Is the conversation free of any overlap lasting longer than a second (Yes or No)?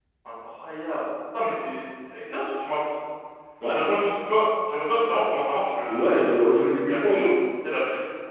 Yes